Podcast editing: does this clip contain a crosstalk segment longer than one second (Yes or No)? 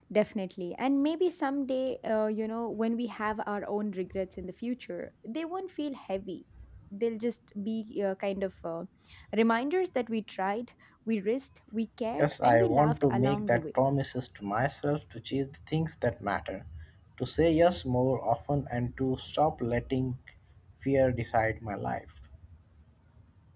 Yes